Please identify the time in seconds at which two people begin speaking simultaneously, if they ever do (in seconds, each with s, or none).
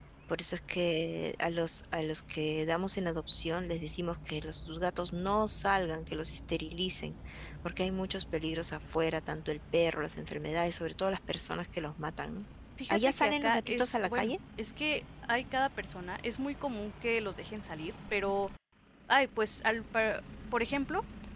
12.9 s